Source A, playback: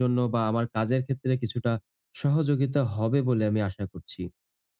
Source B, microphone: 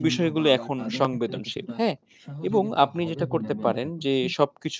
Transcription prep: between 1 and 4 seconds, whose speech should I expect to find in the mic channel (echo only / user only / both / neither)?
both